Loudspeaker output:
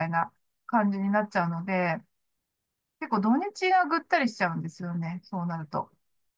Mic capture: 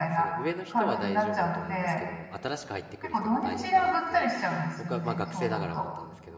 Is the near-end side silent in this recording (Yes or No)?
No